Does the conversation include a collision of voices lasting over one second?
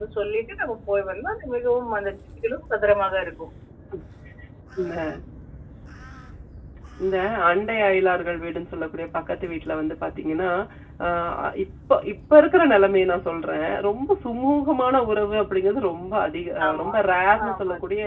No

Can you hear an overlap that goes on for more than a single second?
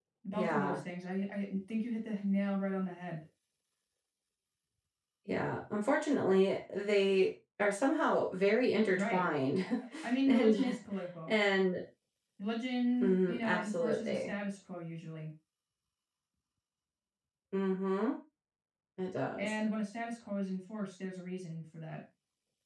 Yes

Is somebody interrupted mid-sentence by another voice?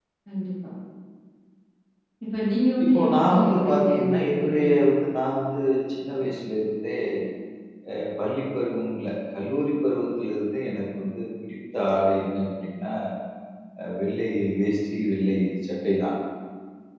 Yes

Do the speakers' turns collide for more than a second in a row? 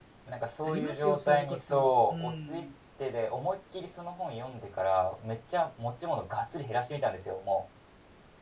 Yes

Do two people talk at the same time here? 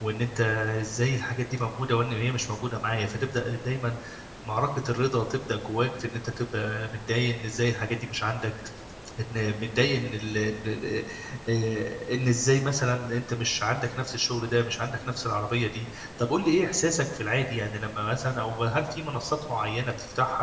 No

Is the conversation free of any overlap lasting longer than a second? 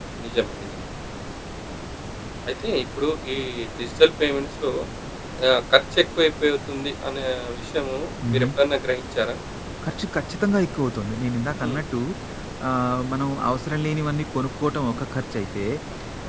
Yes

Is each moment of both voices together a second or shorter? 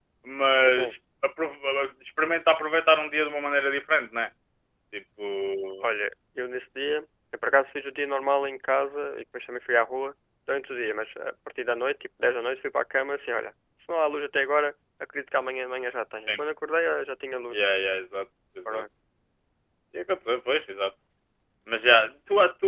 Yes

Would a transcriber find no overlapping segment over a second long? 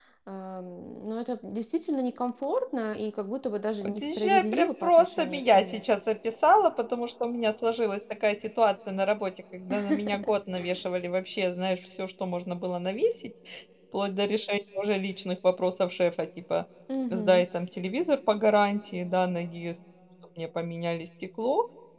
No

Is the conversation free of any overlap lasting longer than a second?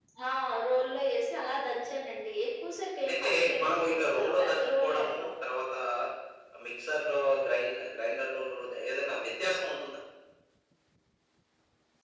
No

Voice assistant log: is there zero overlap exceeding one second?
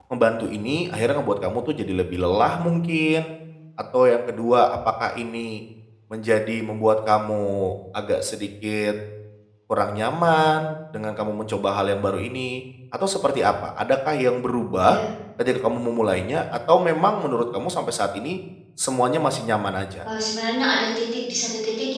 Yes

